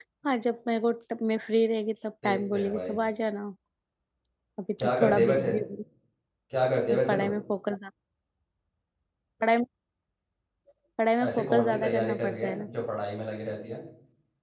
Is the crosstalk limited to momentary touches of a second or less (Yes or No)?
No